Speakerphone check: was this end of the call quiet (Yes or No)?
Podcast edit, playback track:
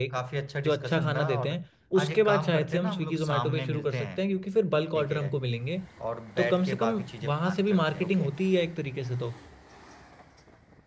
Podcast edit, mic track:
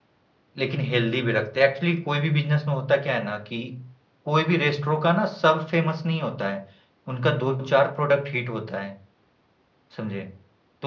No